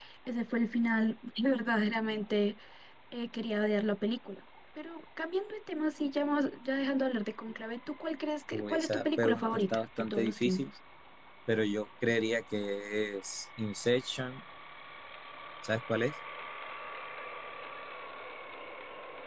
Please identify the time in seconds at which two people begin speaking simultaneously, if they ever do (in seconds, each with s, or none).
8.5 s